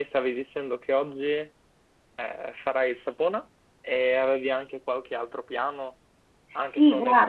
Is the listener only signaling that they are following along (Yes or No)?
No